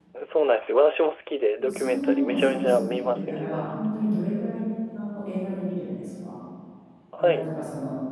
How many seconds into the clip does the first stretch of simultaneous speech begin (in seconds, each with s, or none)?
1.7 s